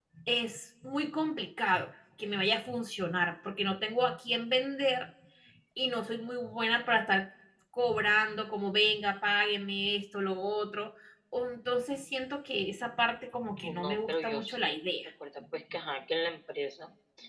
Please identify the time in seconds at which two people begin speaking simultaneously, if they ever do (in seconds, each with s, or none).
13.6 s